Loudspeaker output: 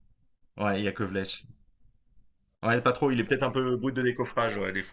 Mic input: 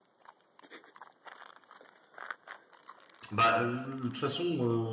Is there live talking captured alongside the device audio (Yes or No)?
Yes